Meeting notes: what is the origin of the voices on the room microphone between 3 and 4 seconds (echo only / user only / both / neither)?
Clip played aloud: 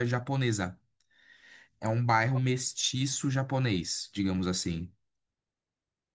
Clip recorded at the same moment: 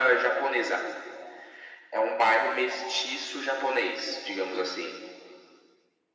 echo only